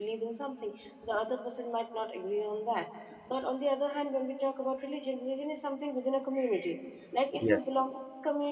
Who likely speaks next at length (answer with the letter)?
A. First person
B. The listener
A